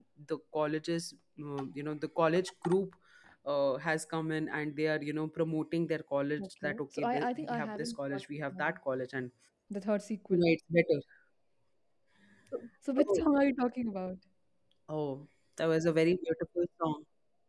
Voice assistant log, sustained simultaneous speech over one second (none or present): present